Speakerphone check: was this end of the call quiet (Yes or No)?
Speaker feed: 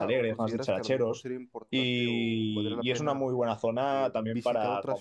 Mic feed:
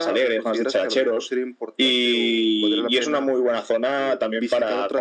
Yes